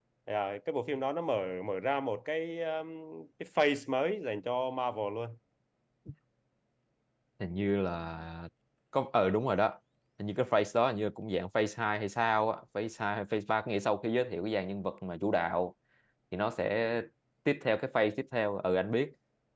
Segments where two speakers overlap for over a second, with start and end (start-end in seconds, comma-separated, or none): none